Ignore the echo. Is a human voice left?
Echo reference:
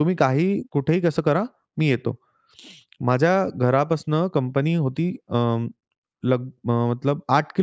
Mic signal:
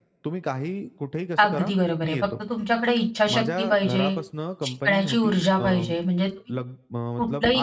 Yes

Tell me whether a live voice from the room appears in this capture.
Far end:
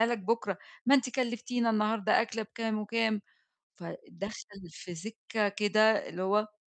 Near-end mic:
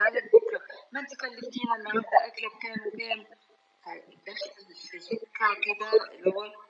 No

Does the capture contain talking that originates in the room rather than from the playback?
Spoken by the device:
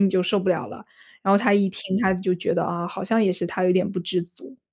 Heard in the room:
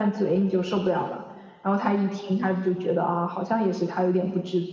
No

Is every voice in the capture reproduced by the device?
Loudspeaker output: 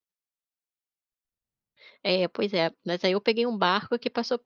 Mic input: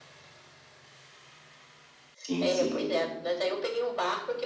No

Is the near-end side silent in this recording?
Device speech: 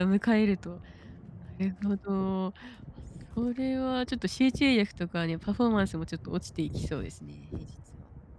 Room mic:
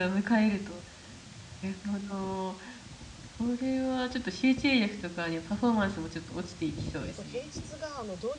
No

